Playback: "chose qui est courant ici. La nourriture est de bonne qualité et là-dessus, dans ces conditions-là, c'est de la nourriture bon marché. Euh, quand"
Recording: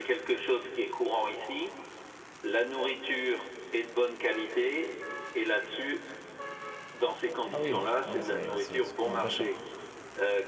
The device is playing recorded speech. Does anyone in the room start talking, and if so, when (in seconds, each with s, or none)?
7.5 s